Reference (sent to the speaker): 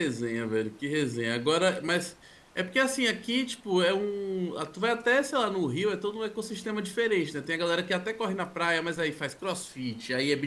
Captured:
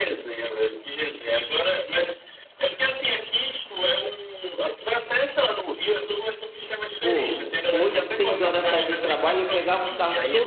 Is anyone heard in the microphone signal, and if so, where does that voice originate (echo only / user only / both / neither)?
both